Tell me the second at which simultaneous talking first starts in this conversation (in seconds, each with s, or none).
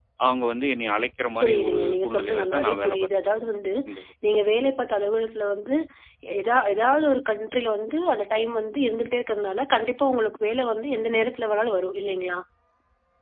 1.4 s